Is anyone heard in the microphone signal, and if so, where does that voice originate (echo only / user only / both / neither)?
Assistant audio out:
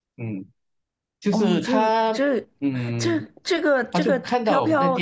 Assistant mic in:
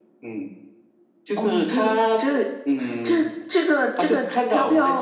echo only